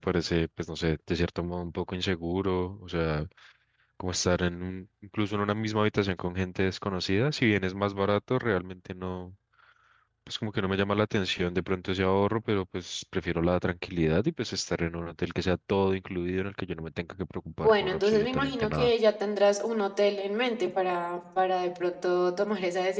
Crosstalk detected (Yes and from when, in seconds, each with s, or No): Yes, from 17.6 s